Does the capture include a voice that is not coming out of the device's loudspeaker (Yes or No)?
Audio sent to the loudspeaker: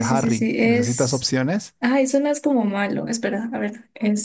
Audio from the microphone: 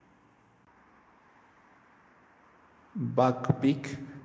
Yes